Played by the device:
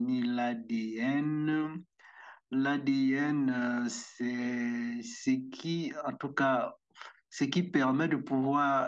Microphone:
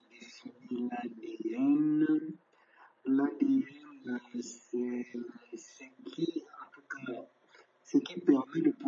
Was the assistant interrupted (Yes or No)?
No